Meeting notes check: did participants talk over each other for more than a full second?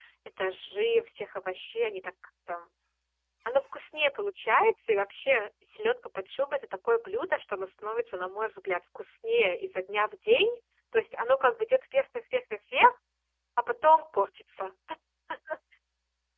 No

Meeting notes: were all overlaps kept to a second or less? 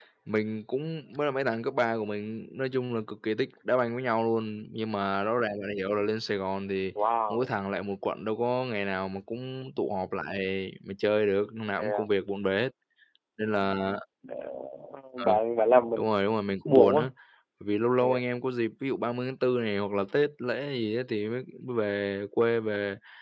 Yes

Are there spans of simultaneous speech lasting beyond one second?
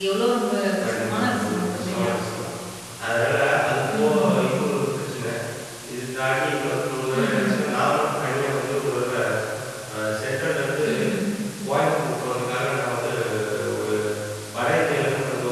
Yes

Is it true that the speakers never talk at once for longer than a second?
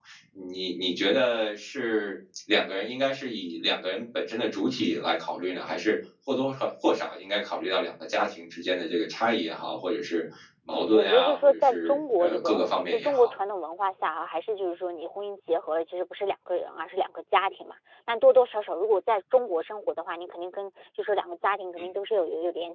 No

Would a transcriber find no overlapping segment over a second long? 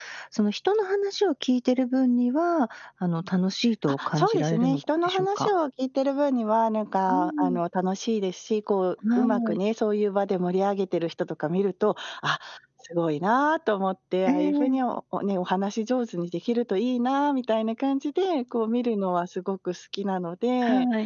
No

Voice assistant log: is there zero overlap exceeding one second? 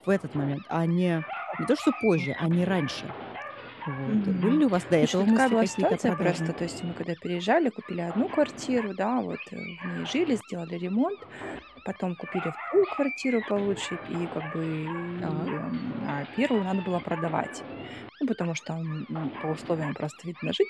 No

